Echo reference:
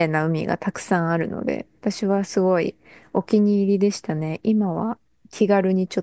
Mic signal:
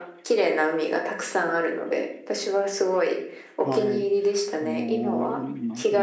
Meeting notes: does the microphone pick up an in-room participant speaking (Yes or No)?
Yes